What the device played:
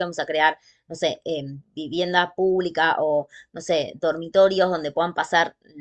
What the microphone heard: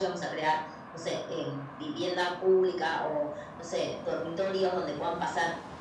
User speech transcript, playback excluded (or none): none